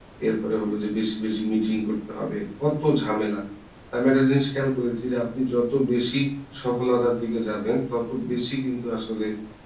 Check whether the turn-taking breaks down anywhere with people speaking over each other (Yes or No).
No